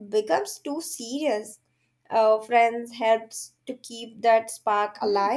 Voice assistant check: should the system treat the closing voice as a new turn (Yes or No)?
Yes